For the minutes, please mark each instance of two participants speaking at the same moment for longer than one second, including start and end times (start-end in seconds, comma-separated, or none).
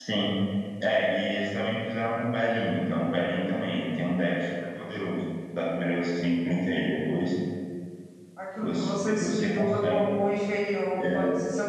8.6-10.0